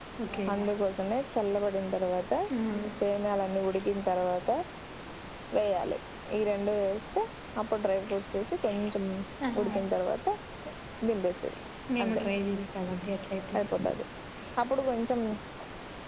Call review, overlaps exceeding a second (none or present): none